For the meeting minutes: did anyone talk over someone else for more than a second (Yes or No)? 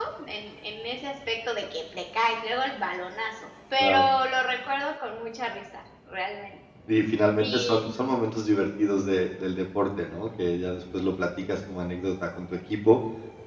No